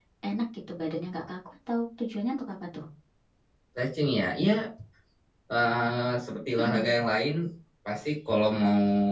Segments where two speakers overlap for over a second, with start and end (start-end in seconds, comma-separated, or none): none